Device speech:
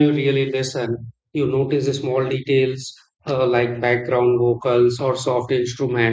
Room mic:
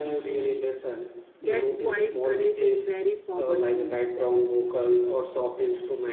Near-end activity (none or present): present